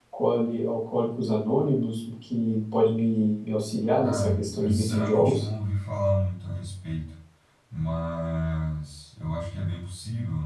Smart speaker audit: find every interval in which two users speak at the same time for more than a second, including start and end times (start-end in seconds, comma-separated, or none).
4.0-5.5